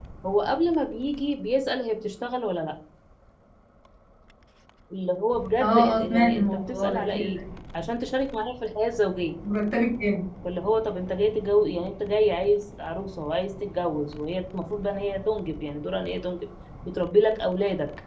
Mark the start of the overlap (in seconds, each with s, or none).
5.6 s